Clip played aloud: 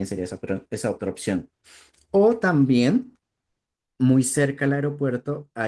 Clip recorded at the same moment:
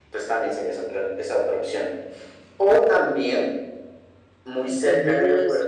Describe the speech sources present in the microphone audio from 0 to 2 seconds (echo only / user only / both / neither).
echo only